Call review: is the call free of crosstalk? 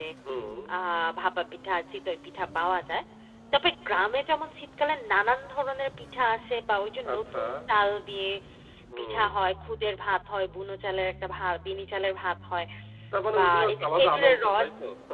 No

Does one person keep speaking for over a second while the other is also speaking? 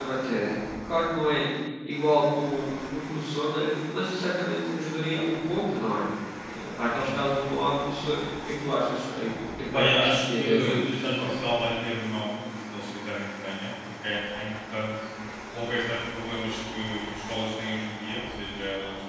Yes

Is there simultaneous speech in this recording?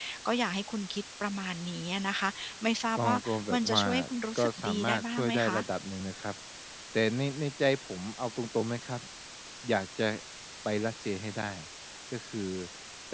Yes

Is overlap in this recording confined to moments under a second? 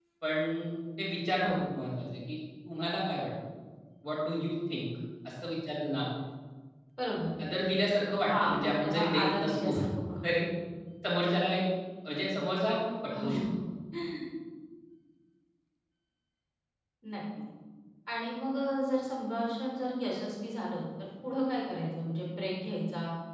No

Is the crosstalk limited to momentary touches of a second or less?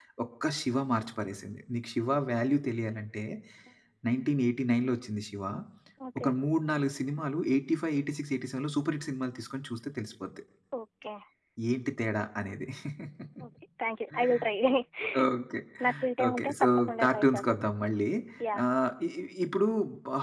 No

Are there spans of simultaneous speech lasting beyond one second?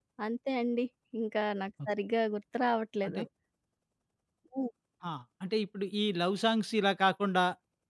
No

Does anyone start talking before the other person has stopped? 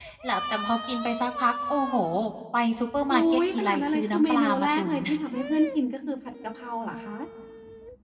Yes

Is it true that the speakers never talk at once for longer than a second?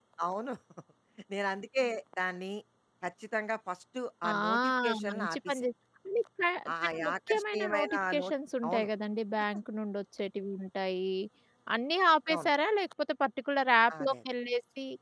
No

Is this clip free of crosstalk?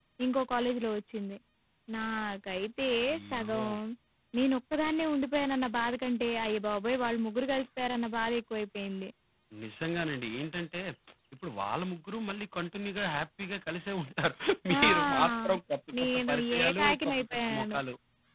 No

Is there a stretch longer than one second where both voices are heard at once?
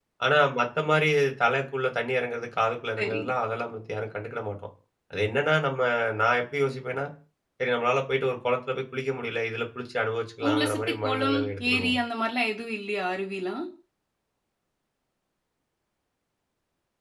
Yes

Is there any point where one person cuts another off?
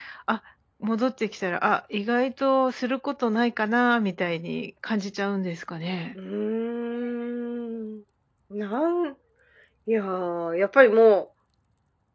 No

